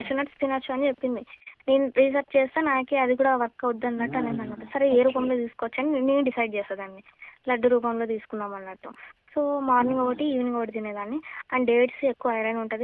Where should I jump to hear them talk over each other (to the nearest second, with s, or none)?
4 s